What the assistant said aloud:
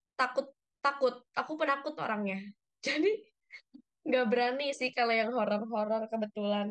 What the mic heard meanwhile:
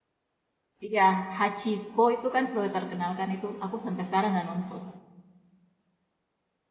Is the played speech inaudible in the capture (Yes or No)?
Yes